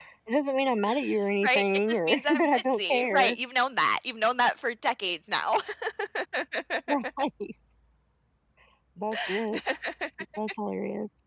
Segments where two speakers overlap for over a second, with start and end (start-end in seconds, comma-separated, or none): 1.4-3.4